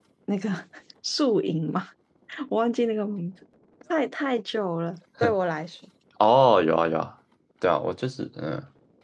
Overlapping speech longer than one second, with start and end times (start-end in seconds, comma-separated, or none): none